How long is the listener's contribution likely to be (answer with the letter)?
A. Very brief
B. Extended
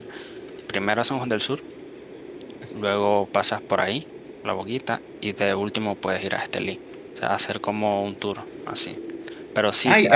B